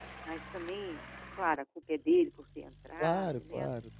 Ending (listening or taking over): taking over